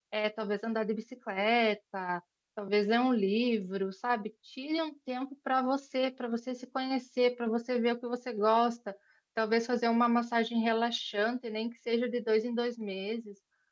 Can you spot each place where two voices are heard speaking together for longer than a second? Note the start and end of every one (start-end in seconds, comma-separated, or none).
none